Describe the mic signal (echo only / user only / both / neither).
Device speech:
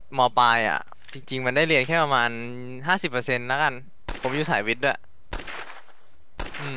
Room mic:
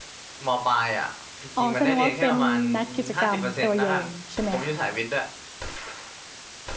both